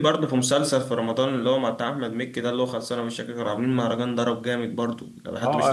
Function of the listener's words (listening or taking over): taking over